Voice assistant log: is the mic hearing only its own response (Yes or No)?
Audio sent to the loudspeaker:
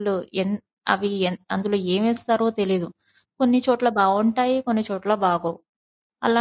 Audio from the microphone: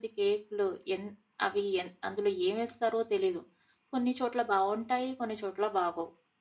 Yes